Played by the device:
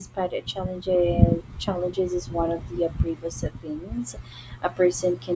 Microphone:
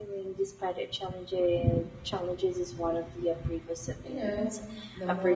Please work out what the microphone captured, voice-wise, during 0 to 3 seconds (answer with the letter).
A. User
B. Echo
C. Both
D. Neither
B